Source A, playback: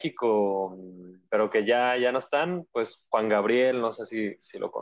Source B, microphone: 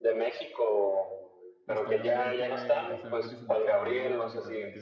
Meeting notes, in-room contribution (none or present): present